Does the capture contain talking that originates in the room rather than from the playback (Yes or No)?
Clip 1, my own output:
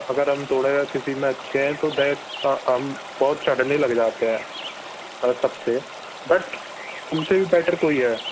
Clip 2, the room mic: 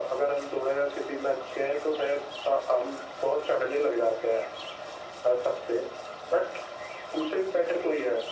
No